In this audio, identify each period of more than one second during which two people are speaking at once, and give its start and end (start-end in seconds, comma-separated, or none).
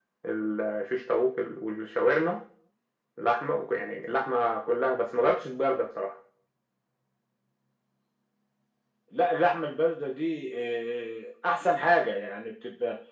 none